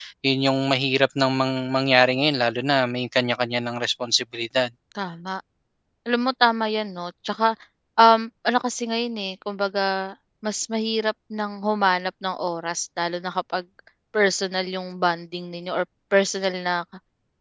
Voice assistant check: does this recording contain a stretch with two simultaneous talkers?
No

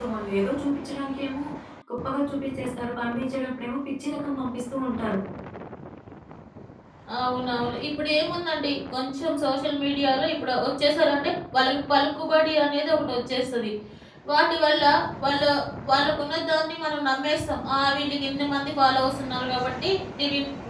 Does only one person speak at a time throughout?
Yes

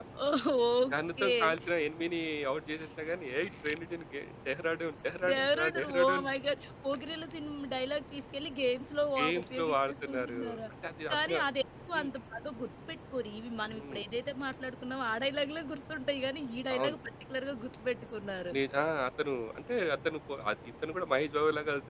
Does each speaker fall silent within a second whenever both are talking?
No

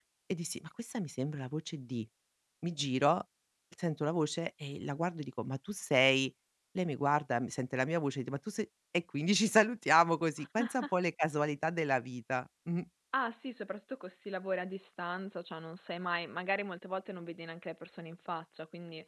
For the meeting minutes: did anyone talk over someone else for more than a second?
No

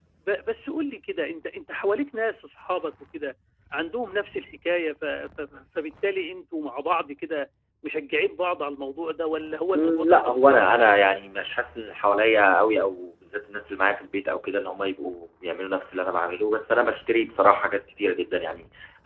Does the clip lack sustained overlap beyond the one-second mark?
No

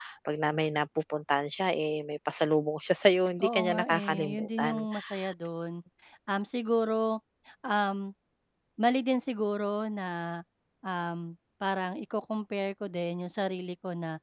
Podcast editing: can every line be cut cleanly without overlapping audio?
No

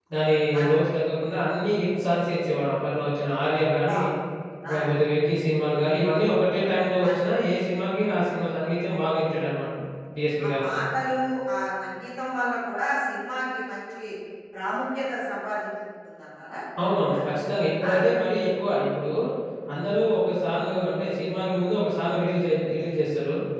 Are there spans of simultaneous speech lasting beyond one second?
No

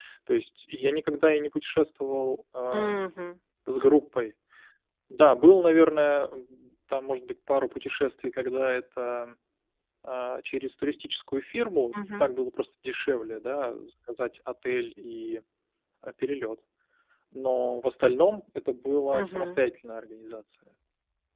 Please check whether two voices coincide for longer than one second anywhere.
No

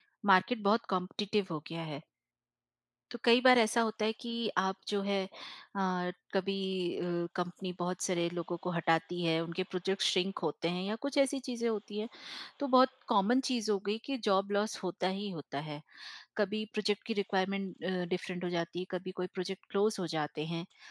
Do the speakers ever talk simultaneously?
No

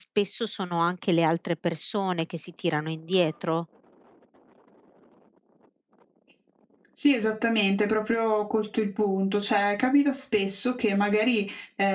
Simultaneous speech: No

